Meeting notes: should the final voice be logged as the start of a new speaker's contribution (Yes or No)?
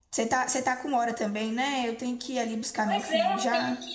Yes